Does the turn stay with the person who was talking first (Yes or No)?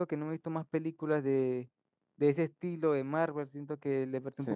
Yes